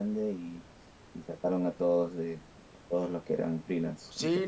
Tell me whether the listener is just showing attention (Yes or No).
No